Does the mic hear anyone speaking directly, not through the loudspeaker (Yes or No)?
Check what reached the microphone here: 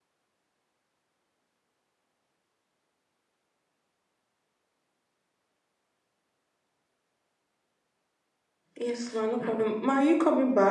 Yes